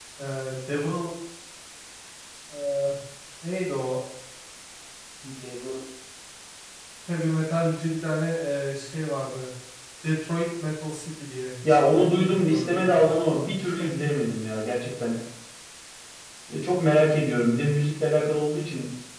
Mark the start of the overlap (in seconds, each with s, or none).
11.6 s